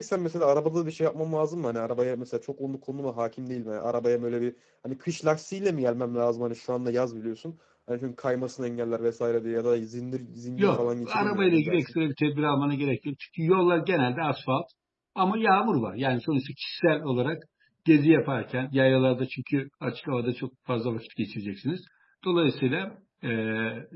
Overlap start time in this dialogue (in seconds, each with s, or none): 10.6 s